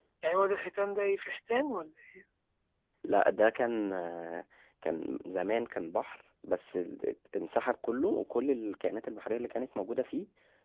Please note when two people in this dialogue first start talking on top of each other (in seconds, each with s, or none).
none